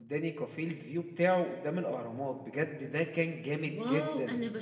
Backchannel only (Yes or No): No